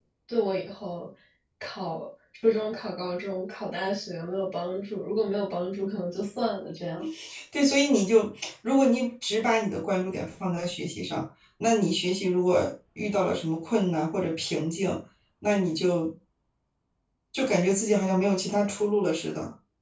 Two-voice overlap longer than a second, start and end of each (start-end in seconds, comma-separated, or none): none